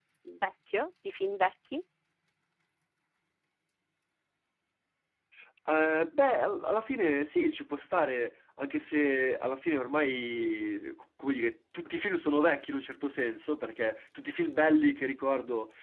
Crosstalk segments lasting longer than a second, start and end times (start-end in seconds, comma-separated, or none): none